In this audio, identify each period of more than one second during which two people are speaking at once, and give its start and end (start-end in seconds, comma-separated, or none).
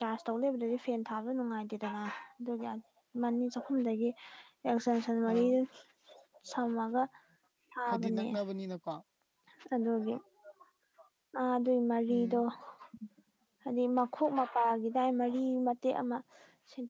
none